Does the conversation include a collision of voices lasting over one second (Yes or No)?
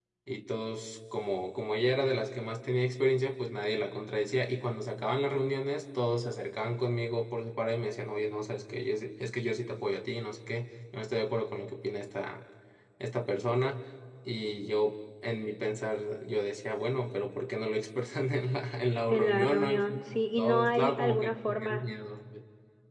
Yes